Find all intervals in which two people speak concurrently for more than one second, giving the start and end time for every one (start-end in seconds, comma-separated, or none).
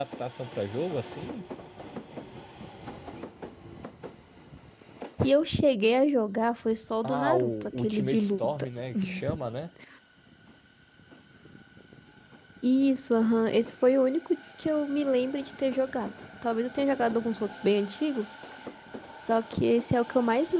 7.0-8.7